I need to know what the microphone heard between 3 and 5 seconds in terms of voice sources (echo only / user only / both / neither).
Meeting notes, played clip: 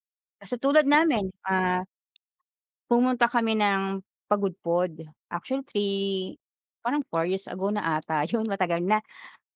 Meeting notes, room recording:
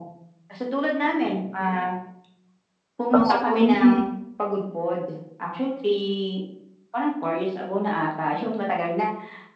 both